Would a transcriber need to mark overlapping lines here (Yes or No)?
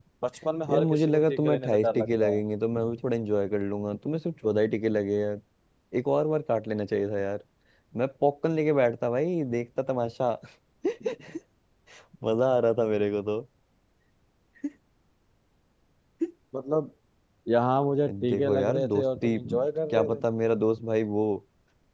Yes